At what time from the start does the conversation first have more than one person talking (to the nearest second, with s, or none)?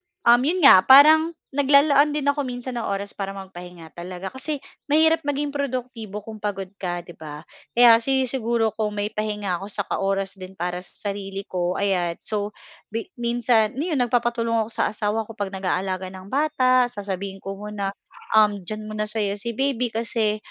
none